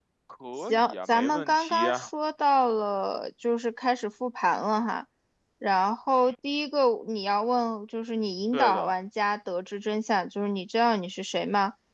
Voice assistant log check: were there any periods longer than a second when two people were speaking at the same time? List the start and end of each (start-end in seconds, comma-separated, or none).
0.7-2.1